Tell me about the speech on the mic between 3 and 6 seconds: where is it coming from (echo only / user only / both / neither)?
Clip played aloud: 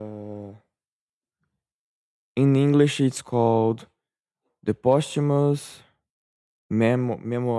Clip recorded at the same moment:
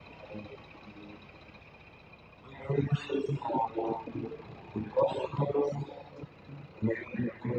echo only